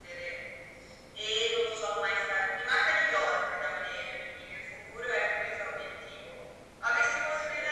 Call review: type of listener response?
listening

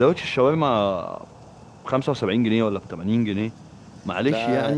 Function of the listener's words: listening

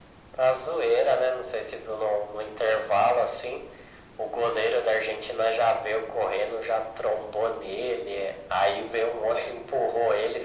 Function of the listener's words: listening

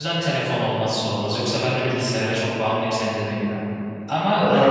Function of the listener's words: listening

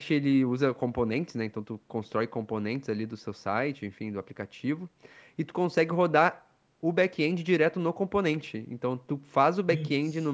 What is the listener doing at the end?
listening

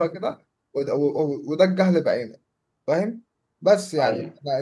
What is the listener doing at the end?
listening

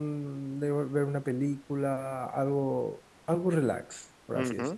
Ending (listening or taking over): taking over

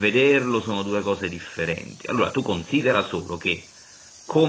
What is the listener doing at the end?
listening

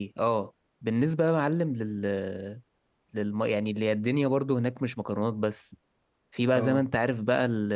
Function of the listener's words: listening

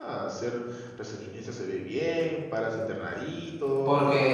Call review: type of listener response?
taking over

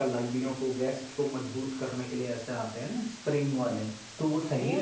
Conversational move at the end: taking over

